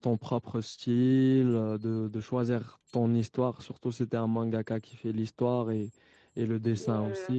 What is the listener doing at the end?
listening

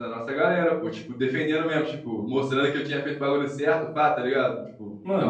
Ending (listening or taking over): taking over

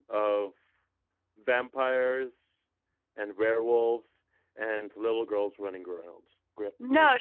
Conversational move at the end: taking over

